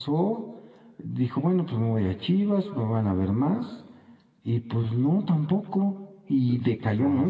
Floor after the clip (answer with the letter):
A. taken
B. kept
B